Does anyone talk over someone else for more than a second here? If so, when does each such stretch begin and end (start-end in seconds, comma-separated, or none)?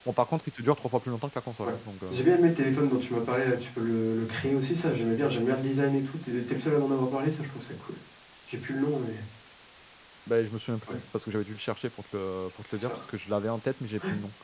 none